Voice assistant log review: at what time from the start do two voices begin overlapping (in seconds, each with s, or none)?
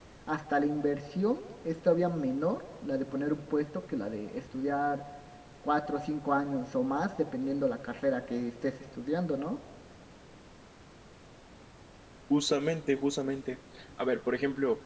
none